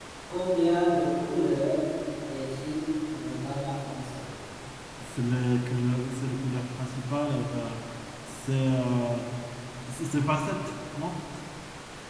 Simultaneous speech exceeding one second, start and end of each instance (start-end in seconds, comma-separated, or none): none